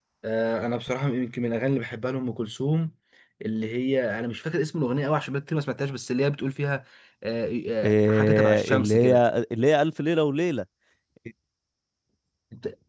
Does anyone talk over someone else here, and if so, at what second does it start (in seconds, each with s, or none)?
7.8 s